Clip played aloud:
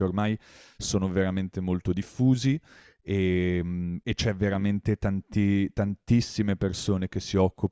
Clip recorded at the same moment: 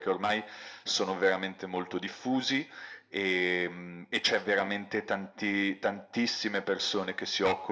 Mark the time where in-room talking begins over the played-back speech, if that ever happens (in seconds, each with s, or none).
none